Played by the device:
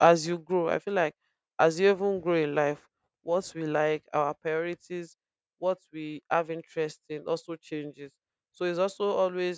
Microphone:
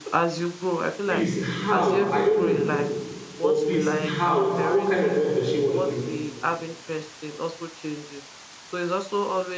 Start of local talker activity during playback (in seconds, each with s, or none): 1.0 s